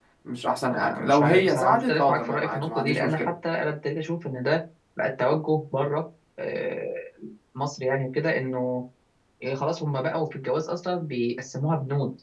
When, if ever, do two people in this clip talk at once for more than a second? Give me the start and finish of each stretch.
0.7-3.3

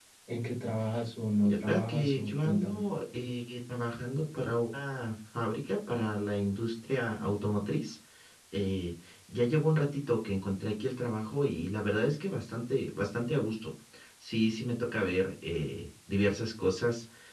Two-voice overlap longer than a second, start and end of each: 1.4-2.8

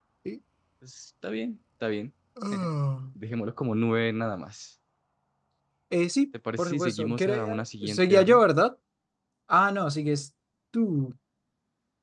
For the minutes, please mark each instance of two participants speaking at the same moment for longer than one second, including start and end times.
6.6-8.4

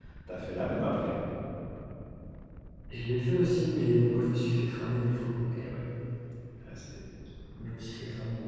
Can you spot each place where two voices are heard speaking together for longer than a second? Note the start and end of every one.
none

